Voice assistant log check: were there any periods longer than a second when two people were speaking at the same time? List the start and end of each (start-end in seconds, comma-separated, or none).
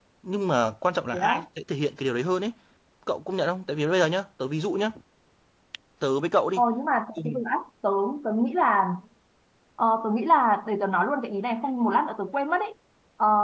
none